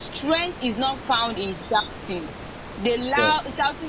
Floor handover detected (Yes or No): No